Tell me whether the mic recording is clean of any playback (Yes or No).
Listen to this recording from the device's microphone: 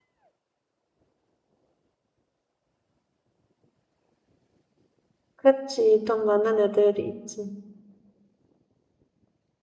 Yes